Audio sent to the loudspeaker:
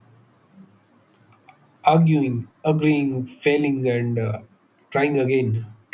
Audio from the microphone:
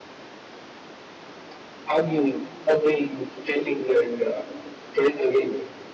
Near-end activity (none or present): none